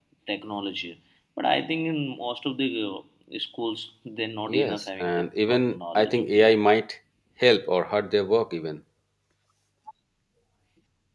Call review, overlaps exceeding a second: present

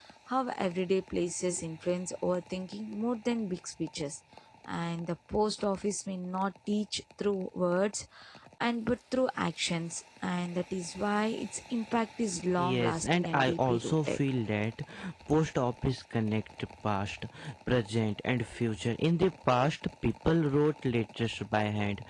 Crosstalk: present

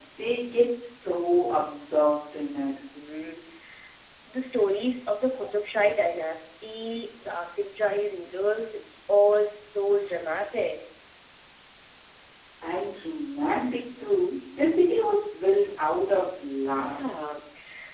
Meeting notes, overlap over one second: none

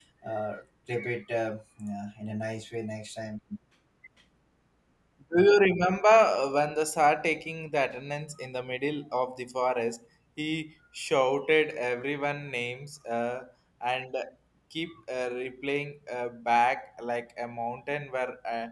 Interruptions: none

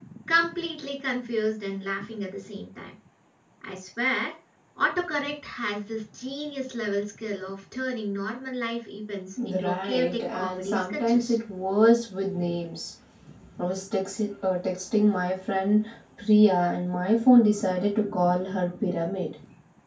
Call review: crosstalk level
present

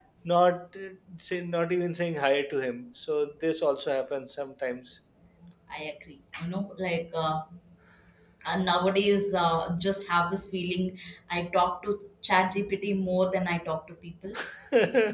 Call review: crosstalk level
none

